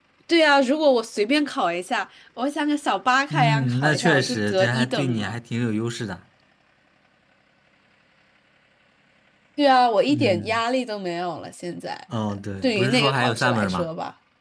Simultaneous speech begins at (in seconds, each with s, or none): 3.3 s